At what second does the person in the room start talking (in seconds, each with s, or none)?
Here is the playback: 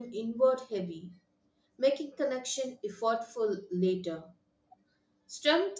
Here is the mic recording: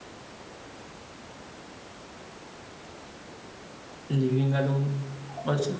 4.1 s